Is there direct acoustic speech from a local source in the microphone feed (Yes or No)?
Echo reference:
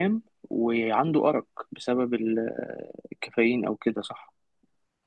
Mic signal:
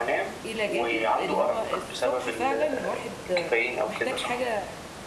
Yes